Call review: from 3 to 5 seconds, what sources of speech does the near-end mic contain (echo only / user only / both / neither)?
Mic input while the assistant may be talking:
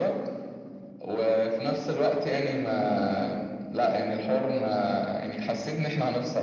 echo only